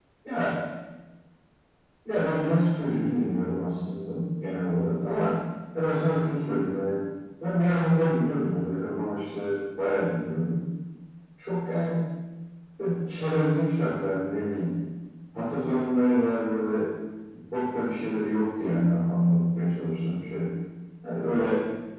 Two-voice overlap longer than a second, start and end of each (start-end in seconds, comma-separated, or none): none